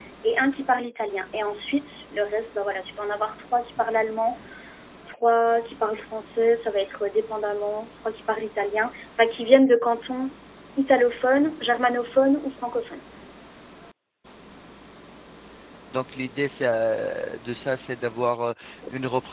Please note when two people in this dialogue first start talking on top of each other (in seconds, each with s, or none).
none